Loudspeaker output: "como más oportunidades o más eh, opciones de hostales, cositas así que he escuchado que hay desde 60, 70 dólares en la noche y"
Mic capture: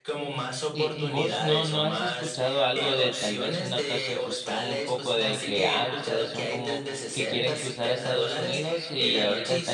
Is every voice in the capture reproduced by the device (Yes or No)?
No